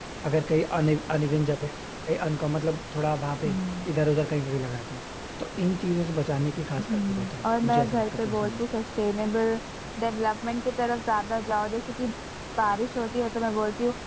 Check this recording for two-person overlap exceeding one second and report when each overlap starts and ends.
6.8-8.7

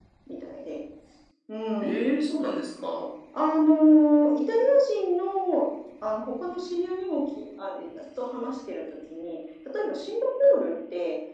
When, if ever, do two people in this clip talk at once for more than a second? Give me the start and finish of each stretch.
none

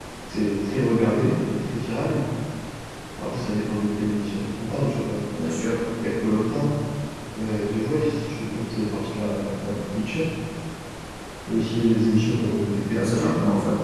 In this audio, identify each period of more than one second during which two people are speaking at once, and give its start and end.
none

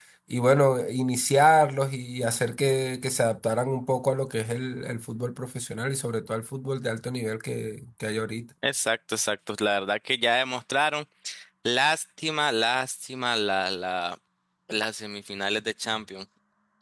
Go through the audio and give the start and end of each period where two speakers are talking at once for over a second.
none

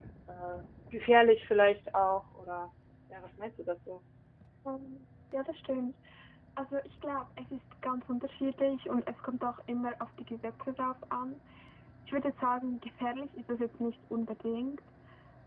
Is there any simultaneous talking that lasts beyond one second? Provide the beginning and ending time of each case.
none

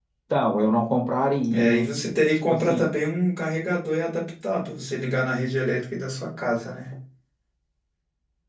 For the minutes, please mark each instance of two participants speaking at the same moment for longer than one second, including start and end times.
none

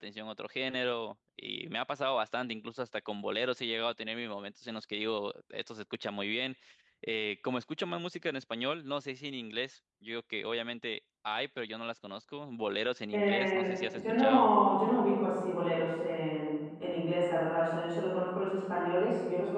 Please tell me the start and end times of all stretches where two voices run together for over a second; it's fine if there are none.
13.1-14.5

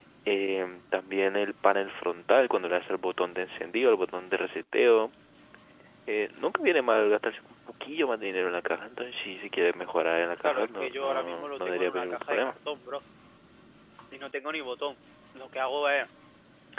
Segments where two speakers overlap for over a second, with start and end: 10.4-12.6

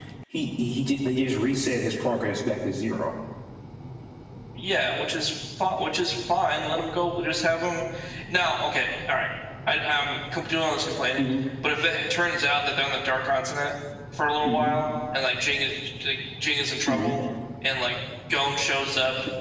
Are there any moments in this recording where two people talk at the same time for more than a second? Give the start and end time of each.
none

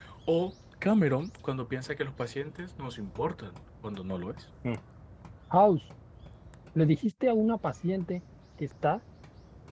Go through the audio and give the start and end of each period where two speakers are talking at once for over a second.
none

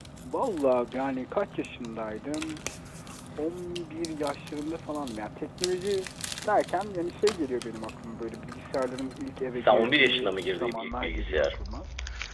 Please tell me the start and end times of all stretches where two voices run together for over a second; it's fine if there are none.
9.5-11.6

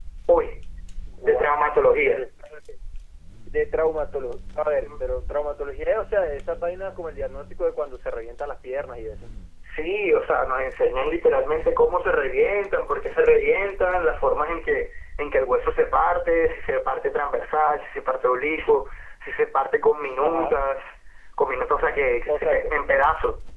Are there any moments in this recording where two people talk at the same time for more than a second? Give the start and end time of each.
none

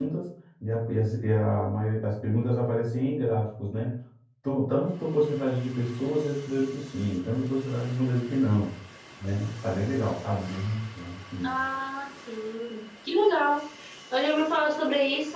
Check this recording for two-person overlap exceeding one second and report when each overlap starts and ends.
none

